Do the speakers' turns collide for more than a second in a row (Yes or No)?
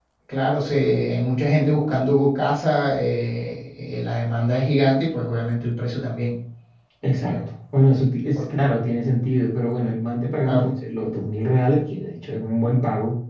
No